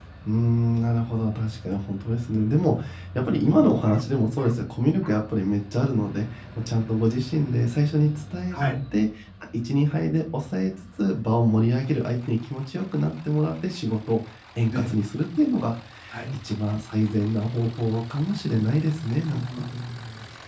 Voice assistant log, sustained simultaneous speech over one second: none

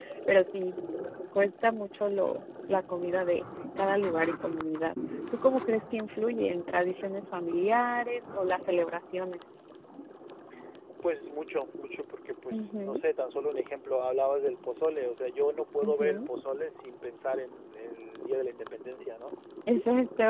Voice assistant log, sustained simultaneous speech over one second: none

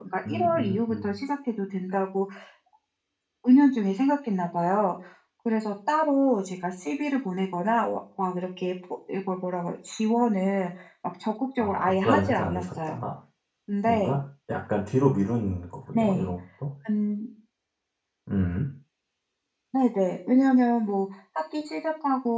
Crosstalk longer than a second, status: present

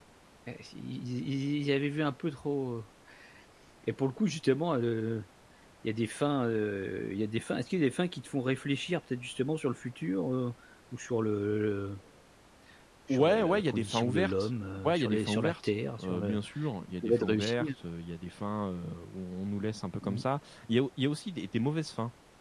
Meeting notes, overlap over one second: present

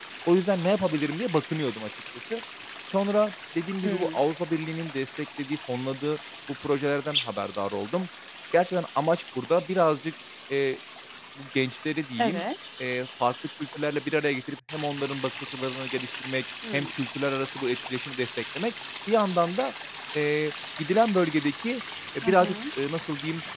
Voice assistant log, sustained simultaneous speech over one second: none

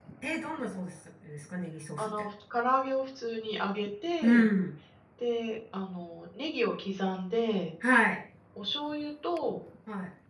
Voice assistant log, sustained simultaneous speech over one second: none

